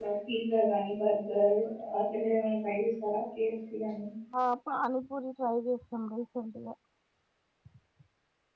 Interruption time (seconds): none

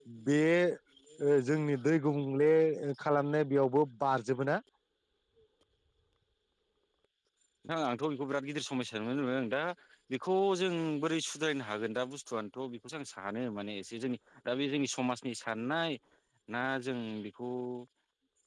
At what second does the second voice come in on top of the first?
none

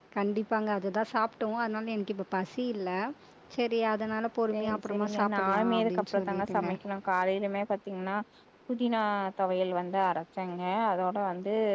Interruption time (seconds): 4.5 s

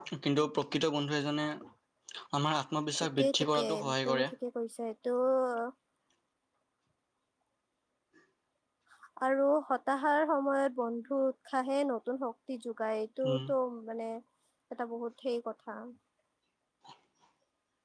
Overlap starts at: 3.0 s

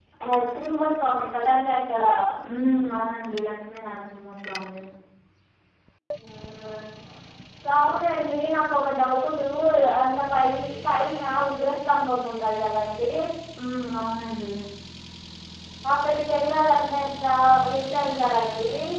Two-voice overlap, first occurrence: none

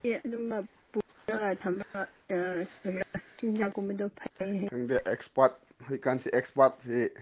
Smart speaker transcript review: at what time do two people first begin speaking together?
none

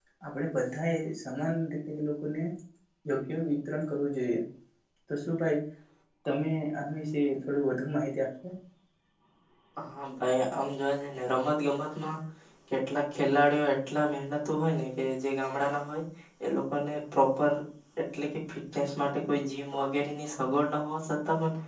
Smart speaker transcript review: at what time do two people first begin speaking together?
none

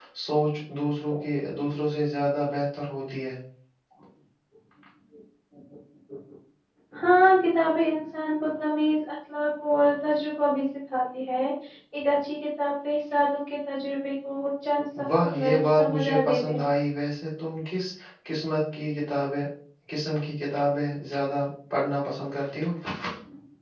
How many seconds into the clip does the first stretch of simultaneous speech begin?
15.2 s

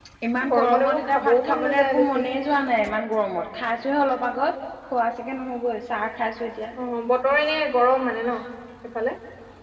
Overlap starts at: 0.5 s

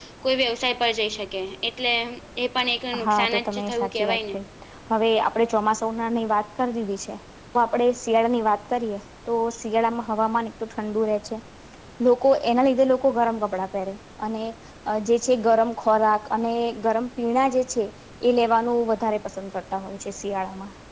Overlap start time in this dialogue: 3.0 s

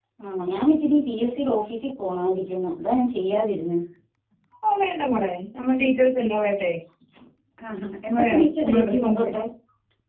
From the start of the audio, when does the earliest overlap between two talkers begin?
8.0 s

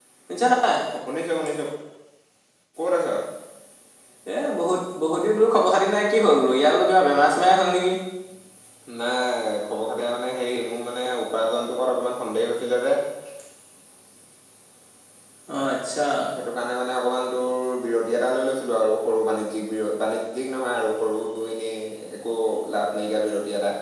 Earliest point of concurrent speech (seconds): none

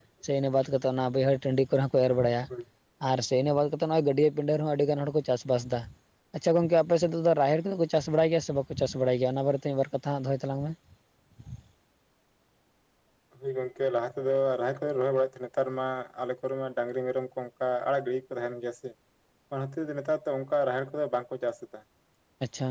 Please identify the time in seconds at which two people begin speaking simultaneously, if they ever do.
none

